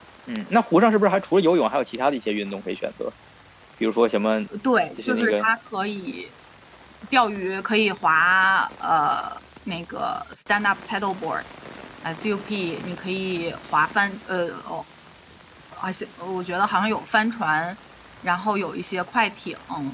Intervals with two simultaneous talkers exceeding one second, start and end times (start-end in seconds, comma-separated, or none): none